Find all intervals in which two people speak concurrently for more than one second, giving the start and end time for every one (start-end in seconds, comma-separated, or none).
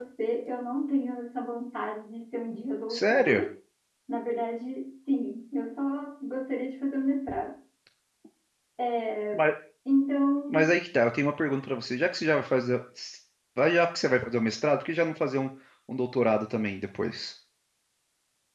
none